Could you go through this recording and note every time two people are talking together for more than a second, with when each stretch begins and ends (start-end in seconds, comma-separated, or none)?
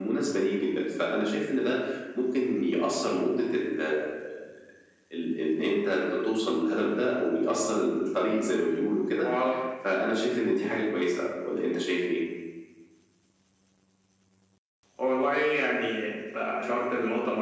none